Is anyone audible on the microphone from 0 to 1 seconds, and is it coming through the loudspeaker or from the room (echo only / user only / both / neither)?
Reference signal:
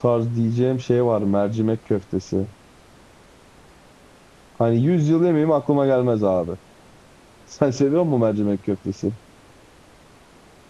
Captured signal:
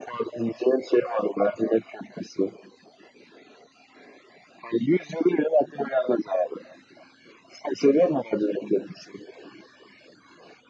echo only